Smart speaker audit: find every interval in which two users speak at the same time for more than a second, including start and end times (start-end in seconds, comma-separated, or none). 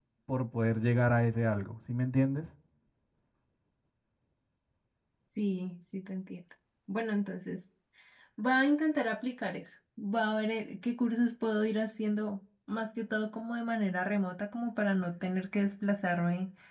none